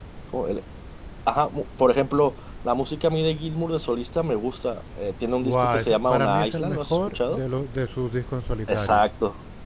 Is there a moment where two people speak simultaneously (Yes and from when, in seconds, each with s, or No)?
Yes, from 5.5 s